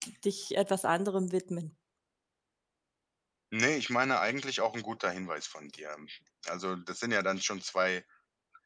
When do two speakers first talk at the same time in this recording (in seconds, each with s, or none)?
none